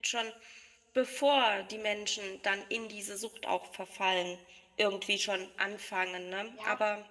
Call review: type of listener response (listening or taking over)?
taking over